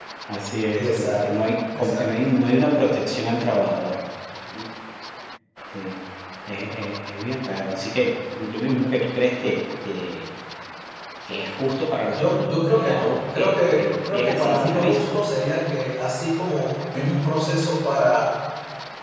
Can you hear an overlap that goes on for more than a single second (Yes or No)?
Yes